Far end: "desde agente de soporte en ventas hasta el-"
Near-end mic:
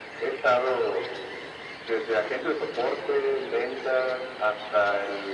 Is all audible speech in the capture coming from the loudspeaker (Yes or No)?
Yes